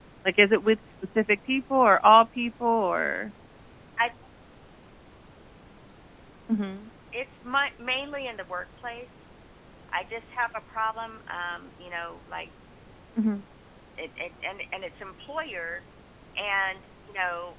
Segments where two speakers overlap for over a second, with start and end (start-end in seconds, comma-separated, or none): none